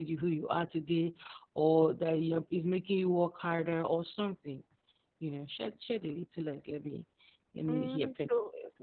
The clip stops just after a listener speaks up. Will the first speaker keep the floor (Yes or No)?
No